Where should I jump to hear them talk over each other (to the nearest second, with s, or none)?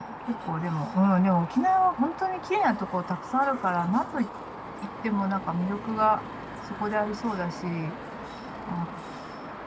none